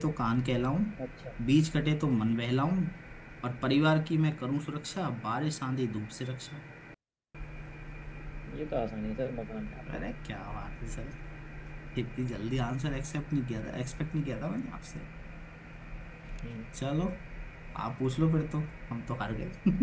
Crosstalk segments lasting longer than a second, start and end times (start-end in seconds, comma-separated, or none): none